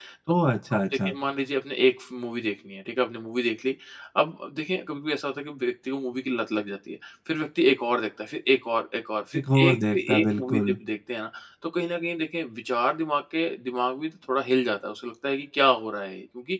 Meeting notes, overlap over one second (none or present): present